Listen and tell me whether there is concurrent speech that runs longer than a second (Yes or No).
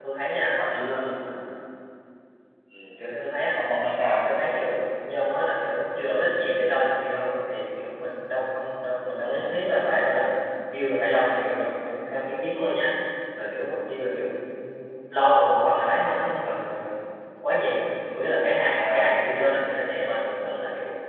No